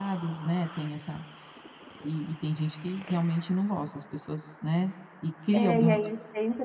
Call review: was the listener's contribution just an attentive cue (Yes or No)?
No